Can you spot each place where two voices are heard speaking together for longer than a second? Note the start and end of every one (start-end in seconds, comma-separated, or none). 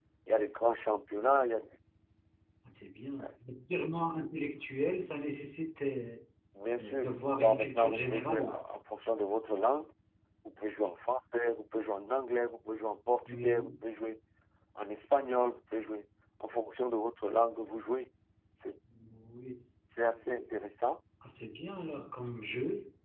6.8-8.4